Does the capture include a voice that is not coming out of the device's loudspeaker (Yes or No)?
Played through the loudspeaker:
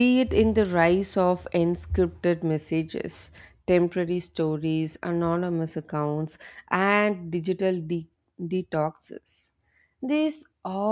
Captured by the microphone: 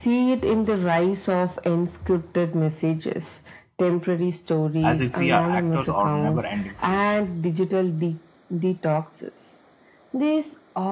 Yes